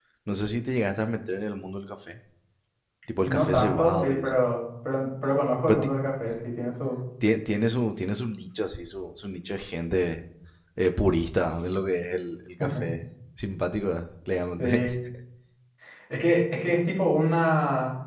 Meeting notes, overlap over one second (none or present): present